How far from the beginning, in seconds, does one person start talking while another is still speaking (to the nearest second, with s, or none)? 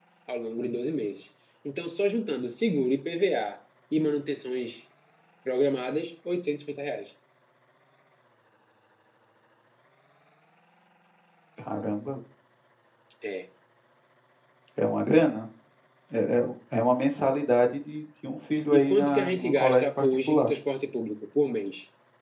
19 s